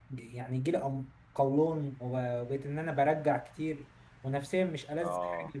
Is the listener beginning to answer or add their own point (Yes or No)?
No